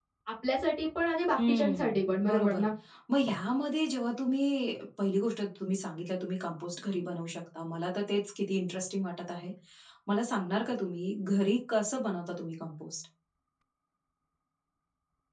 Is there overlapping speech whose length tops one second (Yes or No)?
Yes